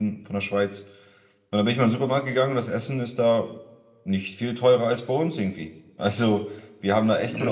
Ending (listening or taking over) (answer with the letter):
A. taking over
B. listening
B